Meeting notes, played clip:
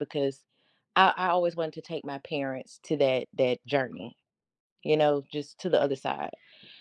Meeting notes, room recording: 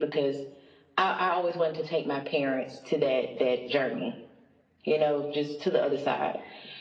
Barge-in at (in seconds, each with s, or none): none